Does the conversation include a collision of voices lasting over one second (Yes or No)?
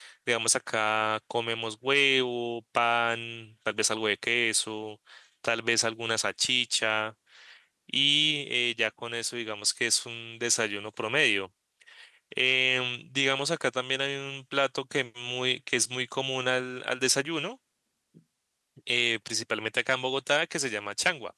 No